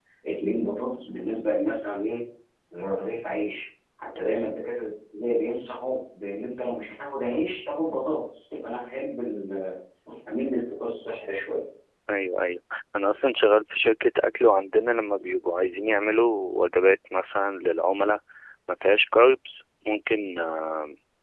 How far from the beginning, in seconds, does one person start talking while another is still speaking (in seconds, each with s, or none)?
none